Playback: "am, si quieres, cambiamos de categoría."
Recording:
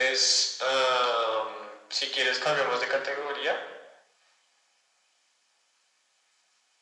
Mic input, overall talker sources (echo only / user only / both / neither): echo only